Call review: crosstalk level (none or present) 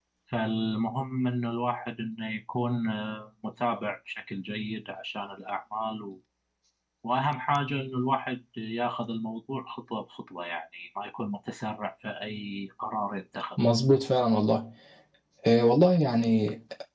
none